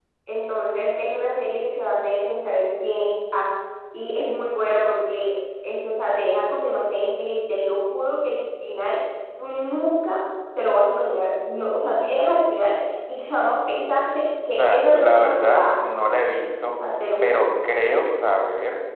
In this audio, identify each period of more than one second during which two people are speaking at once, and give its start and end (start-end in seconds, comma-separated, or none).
14.6-15.8